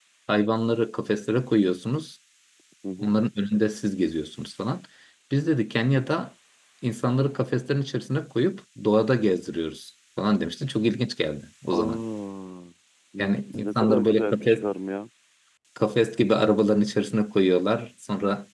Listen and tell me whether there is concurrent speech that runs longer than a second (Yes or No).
Yes